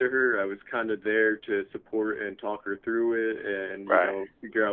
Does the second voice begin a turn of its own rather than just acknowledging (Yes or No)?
No